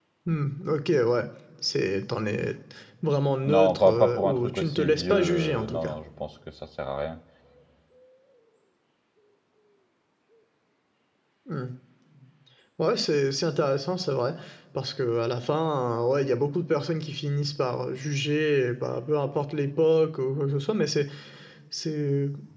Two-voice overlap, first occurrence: 3.5 s

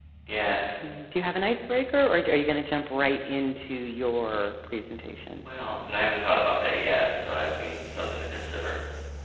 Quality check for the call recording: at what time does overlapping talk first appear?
none

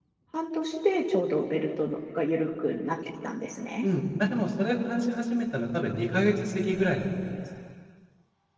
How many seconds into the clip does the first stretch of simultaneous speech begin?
none

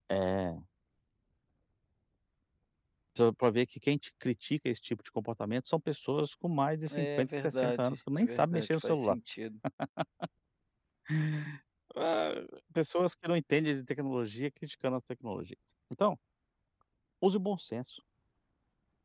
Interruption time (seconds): 6.9 s

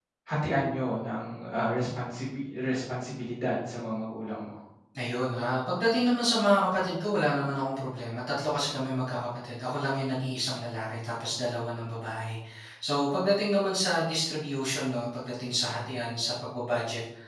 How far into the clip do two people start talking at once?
none

